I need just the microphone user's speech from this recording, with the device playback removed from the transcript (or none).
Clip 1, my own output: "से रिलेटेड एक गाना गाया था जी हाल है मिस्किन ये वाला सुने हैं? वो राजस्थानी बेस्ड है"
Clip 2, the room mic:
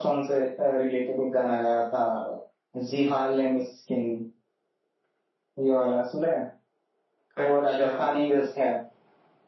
अच्छा